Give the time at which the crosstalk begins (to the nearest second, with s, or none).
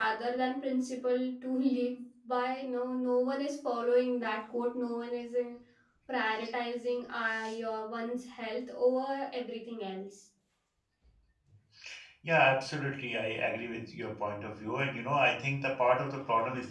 none